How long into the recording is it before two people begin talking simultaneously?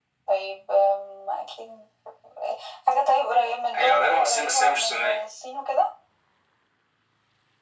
4 s

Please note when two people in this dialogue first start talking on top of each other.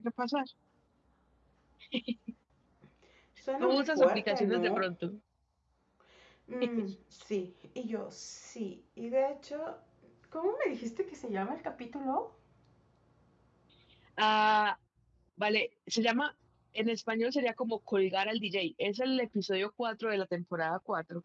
4 s

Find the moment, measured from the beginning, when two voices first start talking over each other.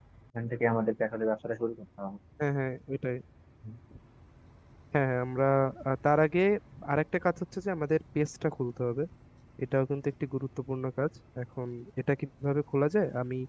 none

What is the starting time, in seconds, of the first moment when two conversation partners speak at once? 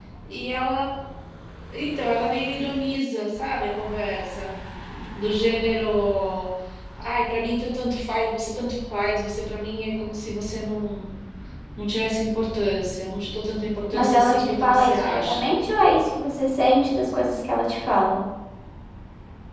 14 s

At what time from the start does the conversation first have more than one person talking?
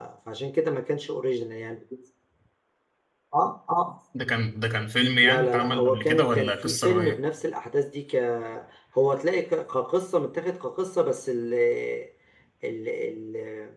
5 s

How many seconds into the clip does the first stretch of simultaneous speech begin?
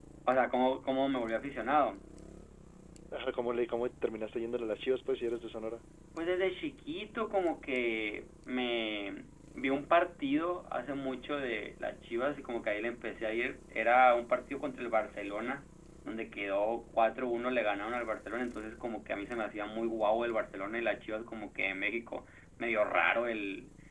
none

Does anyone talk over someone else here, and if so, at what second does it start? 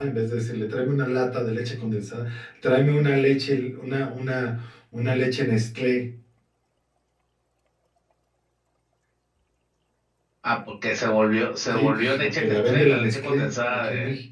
12 s

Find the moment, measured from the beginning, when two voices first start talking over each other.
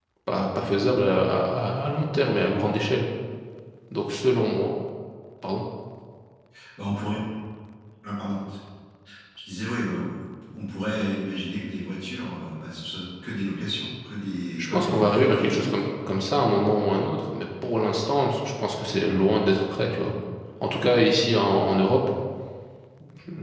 15 s

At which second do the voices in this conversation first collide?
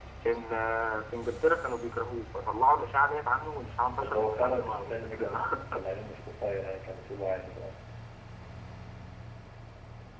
4 s

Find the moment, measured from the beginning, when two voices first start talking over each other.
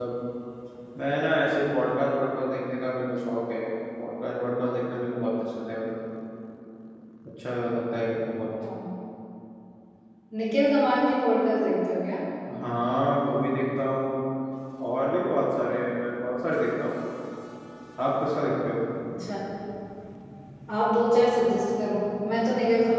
none

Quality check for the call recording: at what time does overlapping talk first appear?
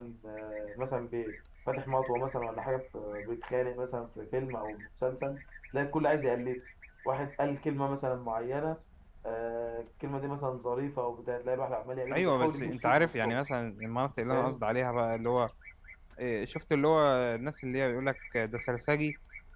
12 s

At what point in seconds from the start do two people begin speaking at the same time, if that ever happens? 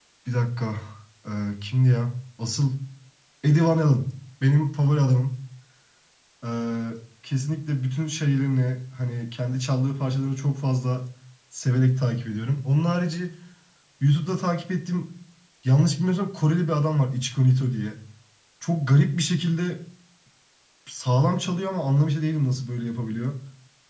none

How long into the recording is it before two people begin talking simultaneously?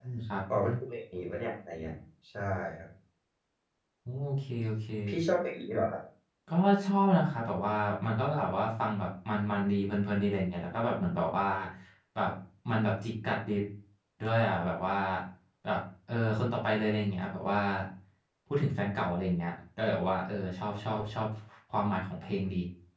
none

